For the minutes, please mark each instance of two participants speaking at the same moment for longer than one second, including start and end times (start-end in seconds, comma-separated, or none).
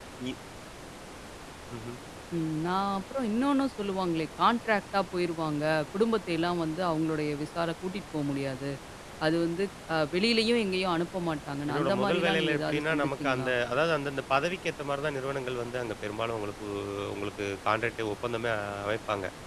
11.7-13.5